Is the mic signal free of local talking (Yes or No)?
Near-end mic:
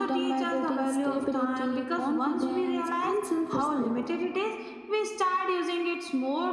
Yes